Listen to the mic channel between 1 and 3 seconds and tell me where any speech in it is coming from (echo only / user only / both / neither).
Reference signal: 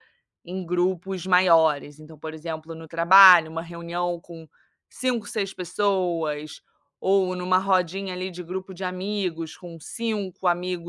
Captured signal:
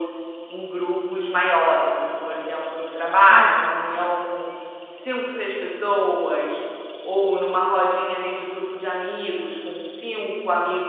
echo only